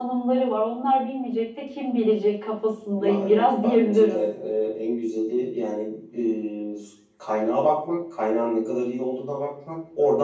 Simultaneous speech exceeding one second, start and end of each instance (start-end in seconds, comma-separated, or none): 3.0-4.2